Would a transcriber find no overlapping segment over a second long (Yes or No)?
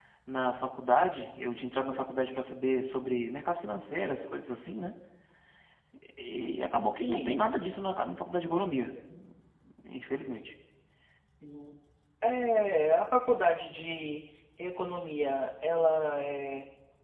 Yes